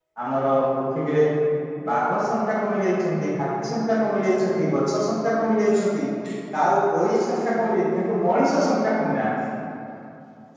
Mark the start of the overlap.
none

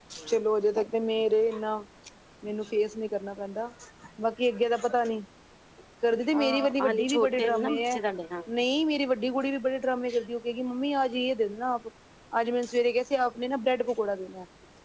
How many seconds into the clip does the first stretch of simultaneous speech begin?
6.3 s

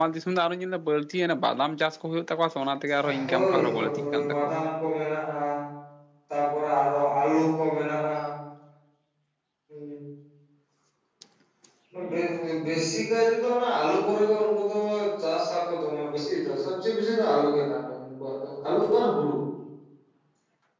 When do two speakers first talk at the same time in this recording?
3.0 s

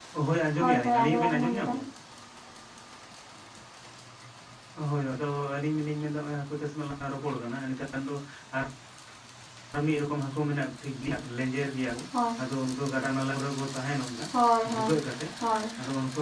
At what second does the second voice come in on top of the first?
0.6 s

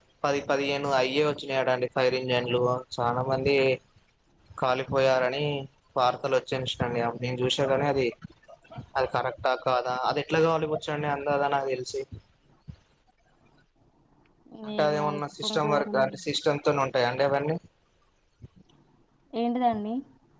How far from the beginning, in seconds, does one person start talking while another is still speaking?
14.8 s

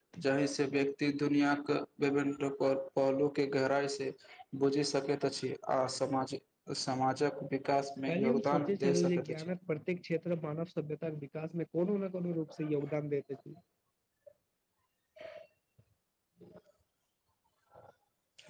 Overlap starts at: 8.1 s

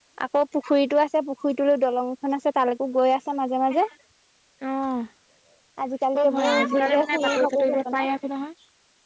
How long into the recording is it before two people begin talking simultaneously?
6.2 s

